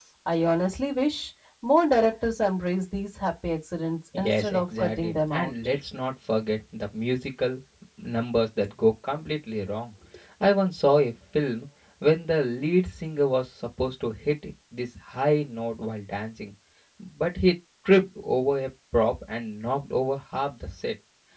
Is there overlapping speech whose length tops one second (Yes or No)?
Yes